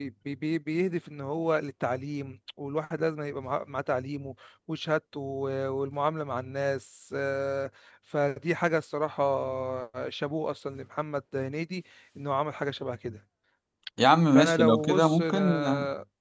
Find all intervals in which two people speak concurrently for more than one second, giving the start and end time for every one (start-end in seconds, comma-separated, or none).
14.3-15.6